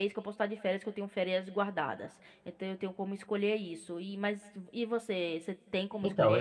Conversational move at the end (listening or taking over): taking over